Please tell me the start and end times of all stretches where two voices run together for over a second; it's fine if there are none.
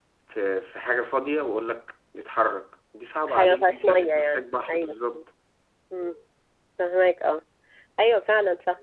3.3-4.9

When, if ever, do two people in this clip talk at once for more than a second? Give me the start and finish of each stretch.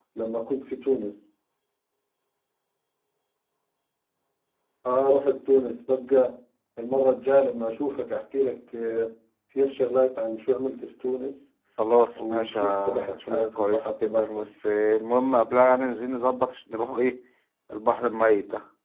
12.2-14.5

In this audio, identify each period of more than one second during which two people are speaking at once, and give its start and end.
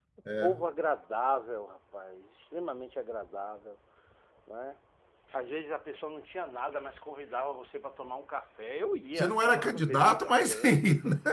9.2-10.8

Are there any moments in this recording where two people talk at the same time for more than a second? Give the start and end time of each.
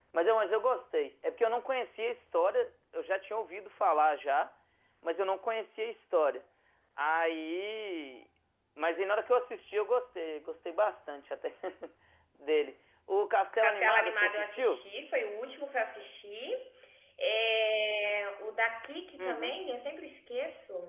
13.6-14.8

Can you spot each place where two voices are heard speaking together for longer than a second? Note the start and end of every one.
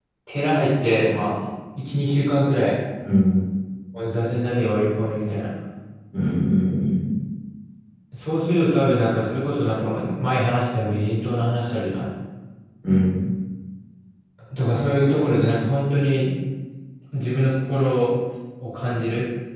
none

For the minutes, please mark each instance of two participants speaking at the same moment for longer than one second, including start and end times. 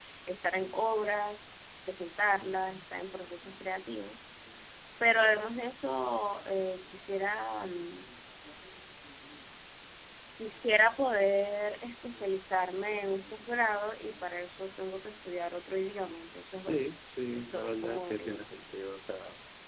17.3-18.6

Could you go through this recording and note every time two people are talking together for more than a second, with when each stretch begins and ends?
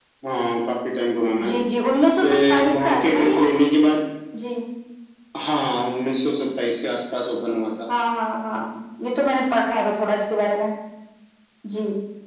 2.2-3.5

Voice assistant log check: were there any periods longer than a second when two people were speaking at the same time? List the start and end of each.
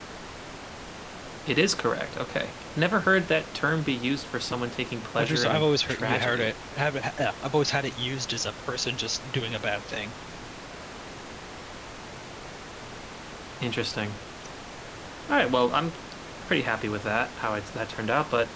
5.2-6.5

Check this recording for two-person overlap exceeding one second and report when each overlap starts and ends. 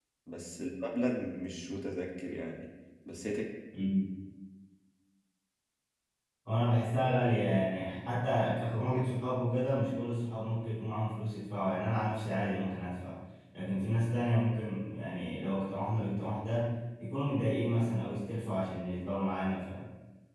none

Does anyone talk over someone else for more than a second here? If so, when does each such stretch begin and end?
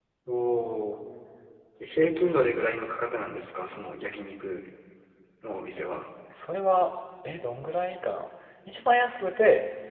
none

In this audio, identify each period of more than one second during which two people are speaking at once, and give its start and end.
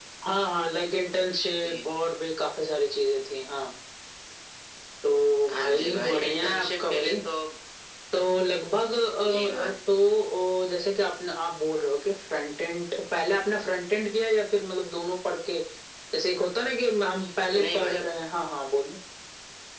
5.5-7.1

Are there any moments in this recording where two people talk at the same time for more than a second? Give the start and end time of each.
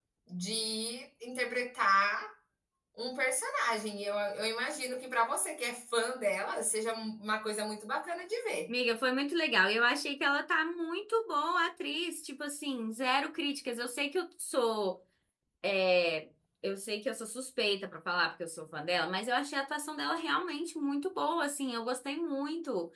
none

